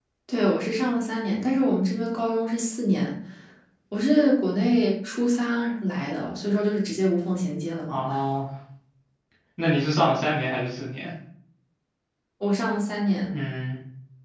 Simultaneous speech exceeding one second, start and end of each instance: none

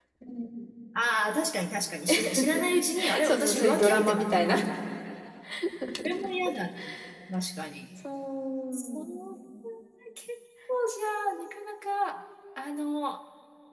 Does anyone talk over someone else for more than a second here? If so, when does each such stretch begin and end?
3.2-4.6

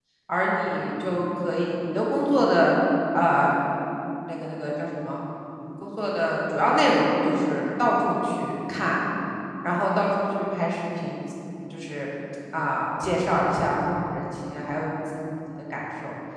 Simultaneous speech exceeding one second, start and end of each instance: none

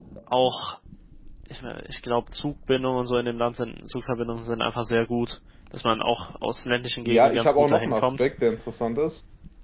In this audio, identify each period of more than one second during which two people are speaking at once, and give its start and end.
7.0-8.3

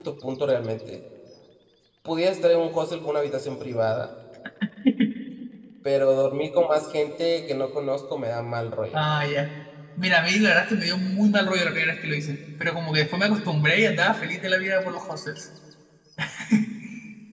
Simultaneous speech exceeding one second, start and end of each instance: none

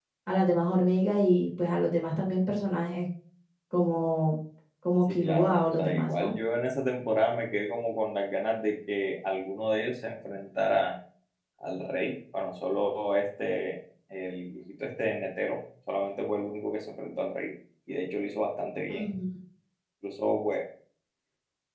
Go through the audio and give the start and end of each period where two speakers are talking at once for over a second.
5.1-6.3

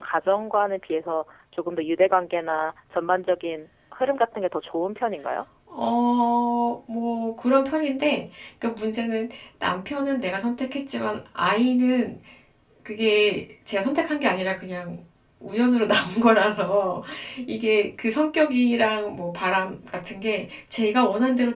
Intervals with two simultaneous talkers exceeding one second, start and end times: none

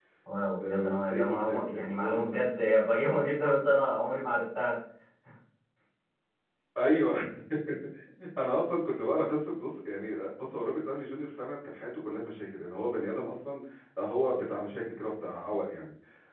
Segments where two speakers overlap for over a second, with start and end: 0.6-2.5

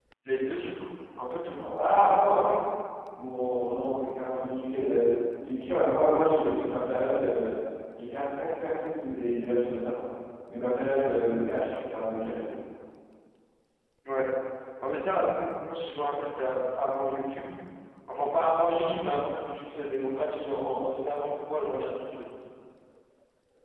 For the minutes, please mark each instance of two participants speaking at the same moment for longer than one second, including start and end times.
none

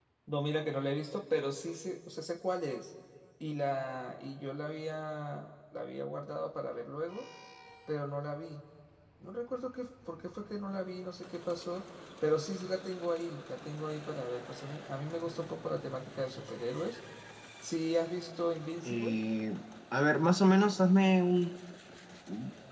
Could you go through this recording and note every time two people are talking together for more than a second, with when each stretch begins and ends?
none

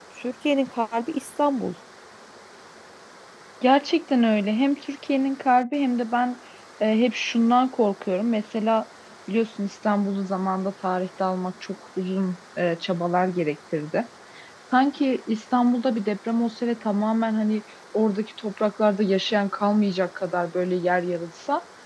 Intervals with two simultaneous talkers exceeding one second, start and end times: none

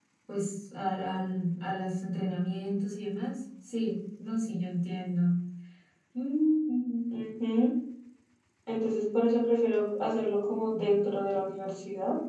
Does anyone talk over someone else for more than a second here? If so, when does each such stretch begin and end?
none

